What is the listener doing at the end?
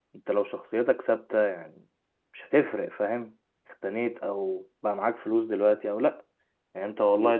listening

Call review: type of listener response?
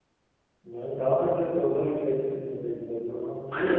taking over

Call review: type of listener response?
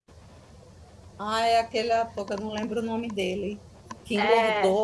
listening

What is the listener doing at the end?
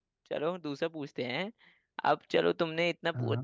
listening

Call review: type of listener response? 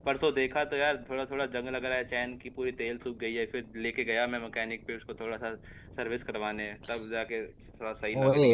taking over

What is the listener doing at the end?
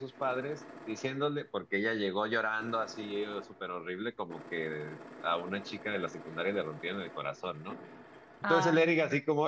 listening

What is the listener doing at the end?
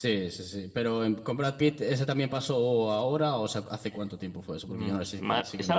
taking over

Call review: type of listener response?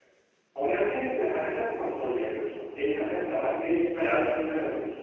listening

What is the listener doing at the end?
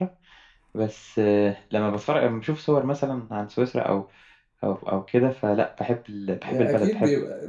taking over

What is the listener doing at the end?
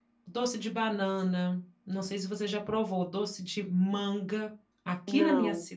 listening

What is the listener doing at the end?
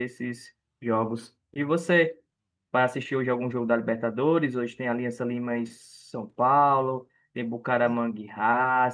listening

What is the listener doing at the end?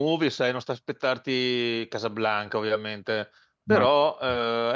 listening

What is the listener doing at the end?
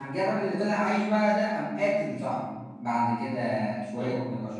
listening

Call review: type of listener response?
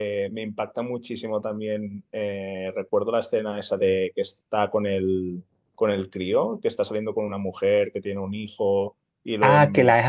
taking over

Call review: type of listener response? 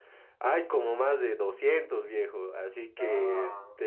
listening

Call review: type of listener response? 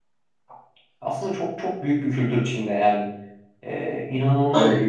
listening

